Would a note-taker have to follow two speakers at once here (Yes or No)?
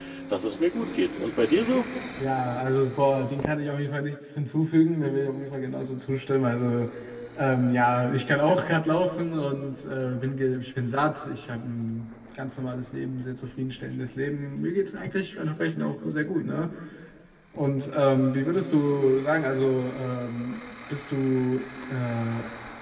No